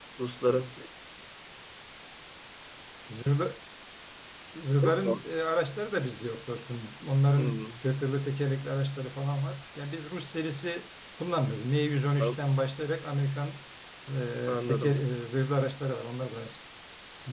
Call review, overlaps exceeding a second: none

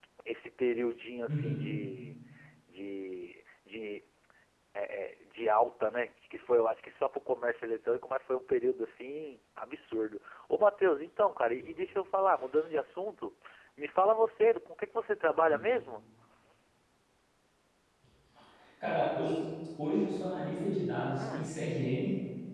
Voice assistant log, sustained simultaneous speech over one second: none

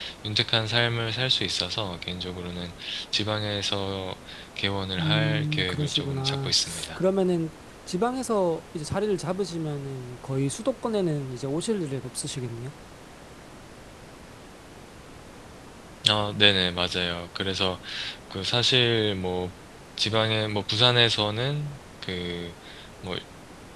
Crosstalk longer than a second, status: present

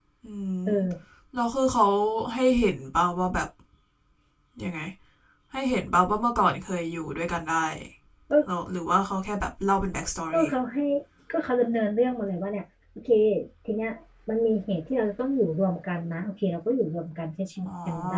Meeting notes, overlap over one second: none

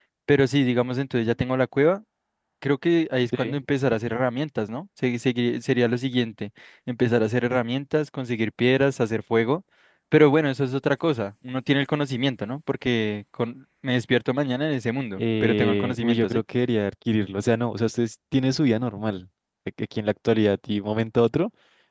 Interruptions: present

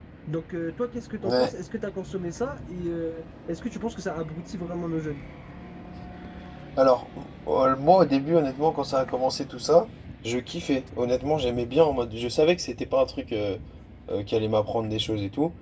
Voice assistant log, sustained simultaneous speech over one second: none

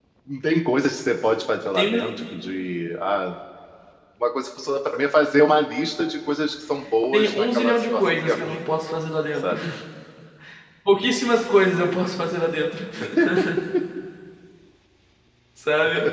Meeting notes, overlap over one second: present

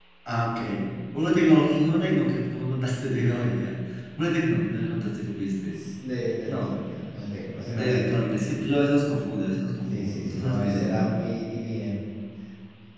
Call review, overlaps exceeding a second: present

